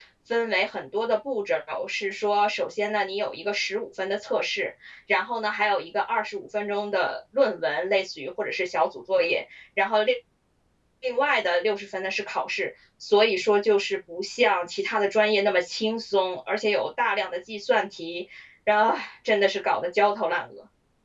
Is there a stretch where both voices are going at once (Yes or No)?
No